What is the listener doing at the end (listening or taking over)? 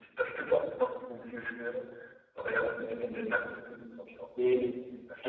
taking over